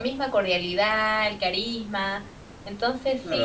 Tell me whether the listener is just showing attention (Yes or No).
No